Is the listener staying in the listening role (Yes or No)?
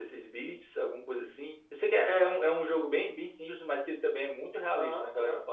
No